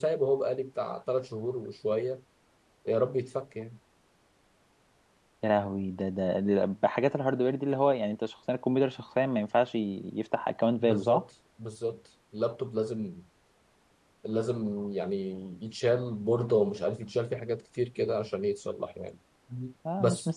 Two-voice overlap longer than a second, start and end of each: none

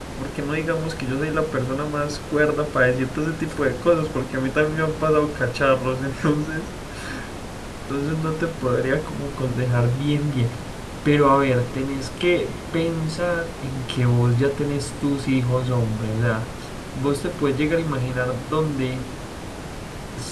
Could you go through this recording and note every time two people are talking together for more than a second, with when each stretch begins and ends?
none

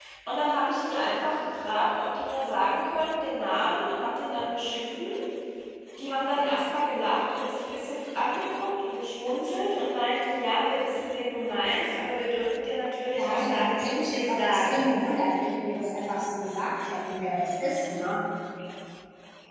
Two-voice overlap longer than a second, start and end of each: 13.2-14.8

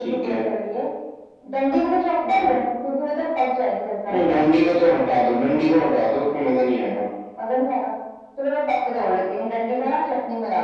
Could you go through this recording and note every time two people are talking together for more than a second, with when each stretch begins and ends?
none

